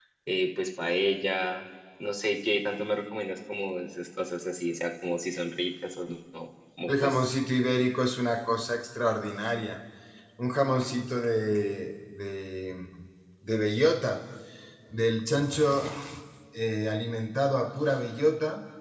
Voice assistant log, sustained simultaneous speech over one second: none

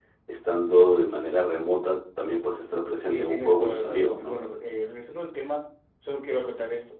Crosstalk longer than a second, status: present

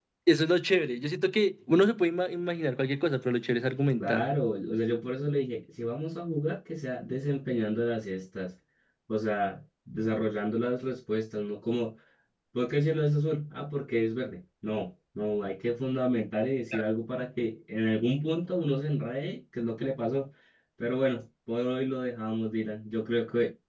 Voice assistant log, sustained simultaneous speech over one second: none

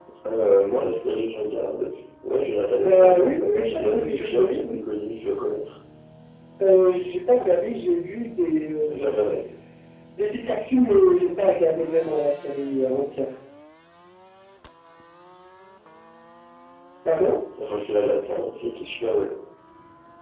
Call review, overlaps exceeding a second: present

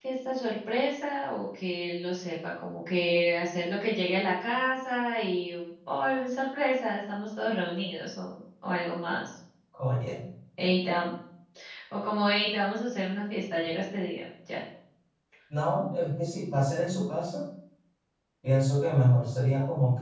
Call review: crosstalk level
none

